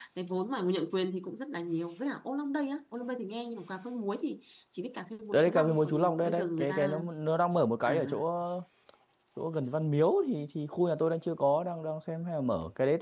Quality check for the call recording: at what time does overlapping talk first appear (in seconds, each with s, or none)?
5.3 s